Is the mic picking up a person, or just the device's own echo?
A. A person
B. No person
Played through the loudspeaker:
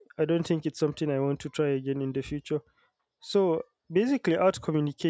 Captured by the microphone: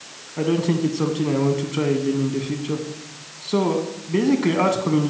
B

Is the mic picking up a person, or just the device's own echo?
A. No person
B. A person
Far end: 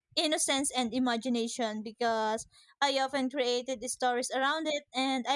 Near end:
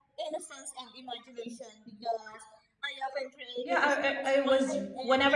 B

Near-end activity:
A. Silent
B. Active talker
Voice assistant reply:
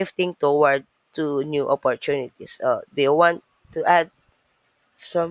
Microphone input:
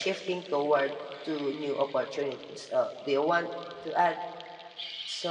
A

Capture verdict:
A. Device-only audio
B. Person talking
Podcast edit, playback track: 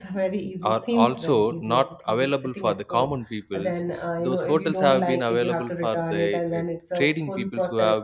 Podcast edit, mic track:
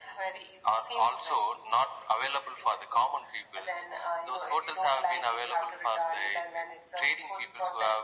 A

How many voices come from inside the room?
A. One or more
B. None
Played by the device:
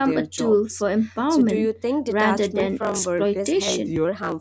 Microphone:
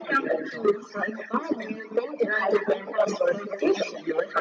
B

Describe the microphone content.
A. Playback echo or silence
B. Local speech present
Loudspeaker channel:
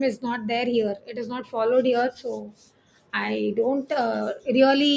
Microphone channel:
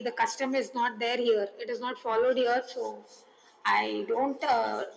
A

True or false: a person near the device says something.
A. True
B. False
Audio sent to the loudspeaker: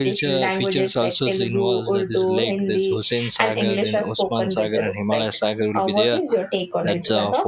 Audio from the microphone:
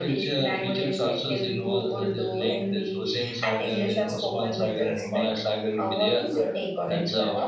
B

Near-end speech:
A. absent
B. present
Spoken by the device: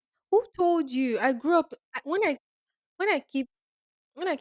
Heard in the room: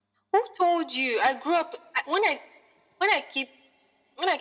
A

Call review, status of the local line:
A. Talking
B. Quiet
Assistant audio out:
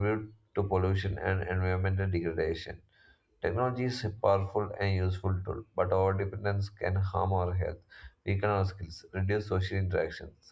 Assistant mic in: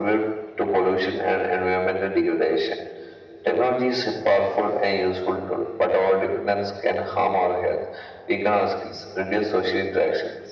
B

